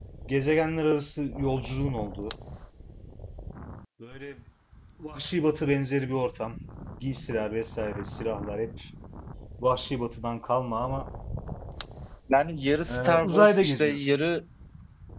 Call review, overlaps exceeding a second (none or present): present